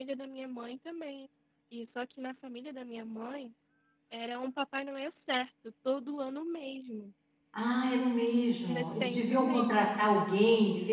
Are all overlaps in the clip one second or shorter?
No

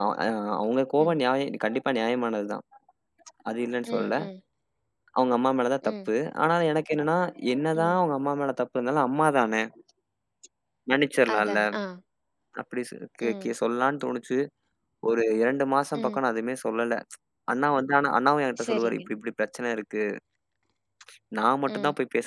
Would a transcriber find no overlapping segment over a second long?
Yes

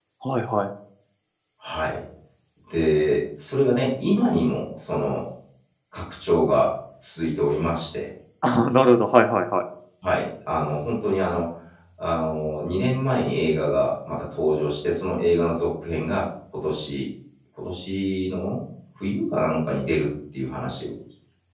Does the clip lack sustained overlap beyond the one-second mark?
Yes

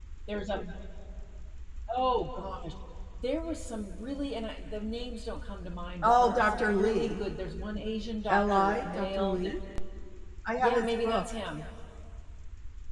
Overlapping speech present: Yes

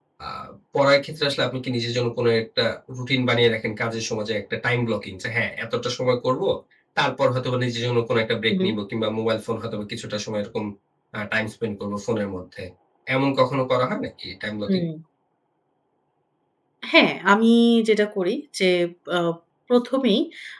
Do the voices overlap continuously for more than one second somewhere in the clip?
No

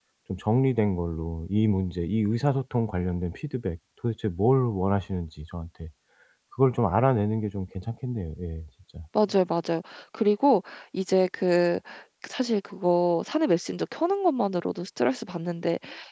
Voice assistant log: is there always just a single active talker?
Yes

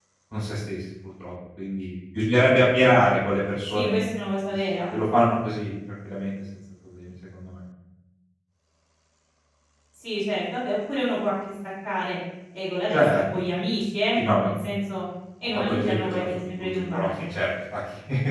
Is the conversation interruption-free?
No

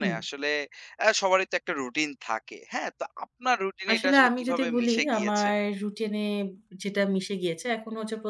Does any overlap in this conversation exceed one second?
Yes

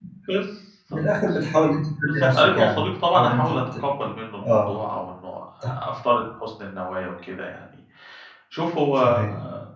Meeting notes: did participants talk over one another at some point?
Yes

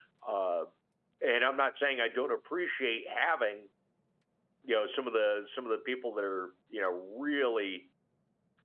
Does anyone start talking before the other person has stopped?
No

